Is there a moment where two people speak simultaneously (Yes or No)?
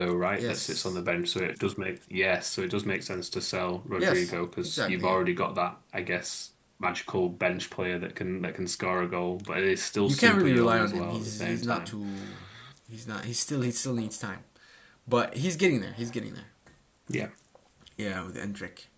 Yes